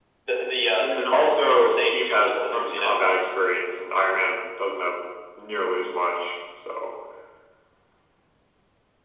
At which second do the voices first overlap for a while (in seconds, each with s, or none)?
0.8 s